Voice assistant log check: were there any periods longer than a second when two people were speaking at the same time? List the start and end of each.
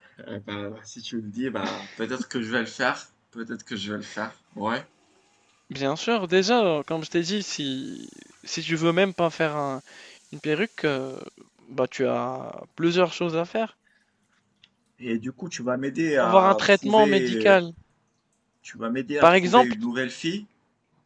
16.2-17.6

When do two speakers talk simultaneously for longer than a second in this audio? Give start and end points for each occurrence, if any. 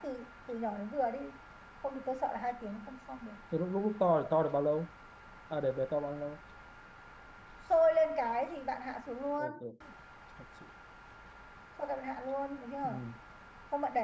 none

